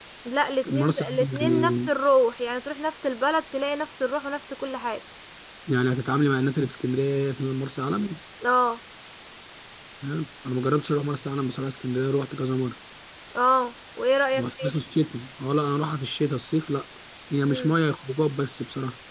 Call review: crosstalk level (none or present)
present